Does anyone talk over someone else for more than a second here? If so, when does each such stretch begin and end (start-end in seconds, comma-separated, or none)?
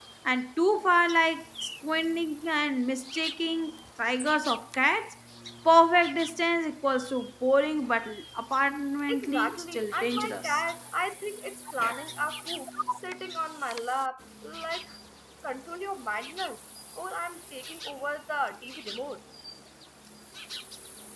9.1-10.6